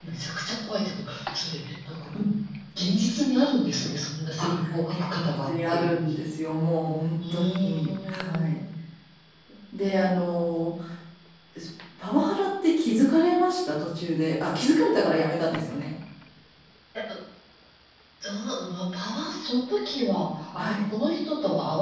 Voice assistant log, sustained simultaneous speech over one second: present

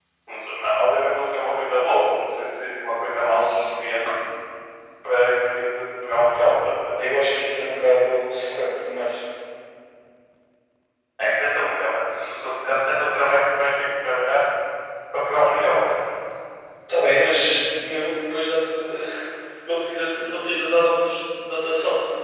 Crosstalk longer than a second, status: none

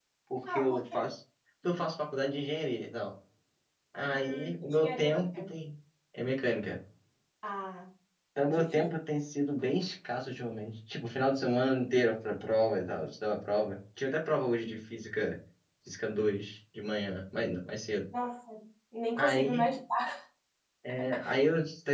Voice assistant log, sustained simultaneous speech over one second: present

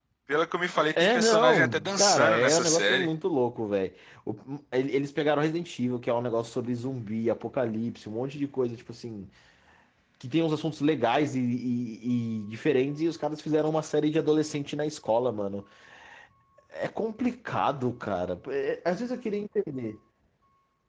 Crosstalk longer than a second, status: present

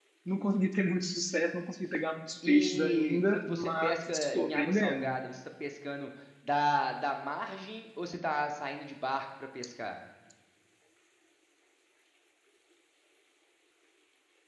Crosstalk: present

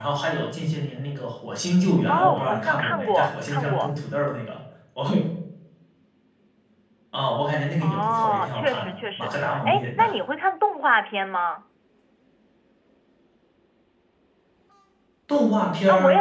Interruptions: present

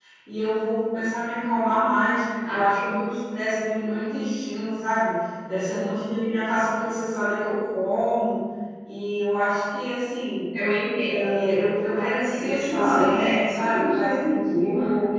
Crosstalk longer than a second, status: present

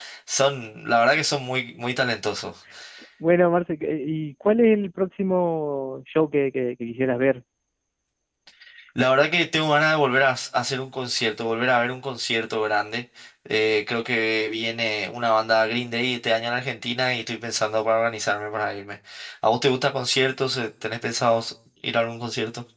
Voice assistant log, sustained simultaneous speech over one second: none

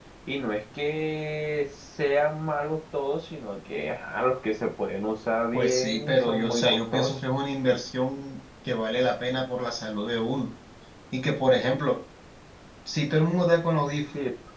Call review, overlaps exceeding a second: present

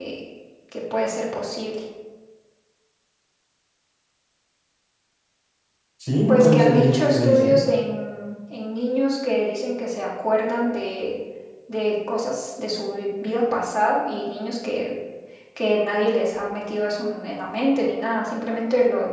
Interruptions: present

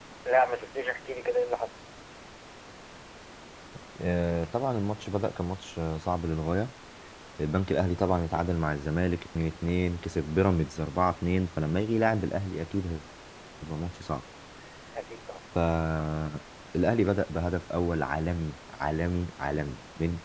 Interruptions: none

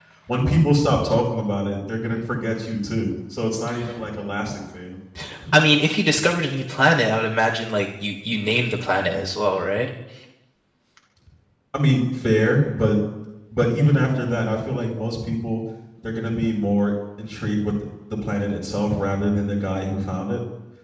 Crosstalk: none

